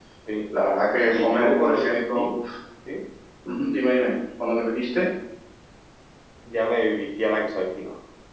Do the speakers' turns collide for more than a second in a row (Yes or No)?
Yes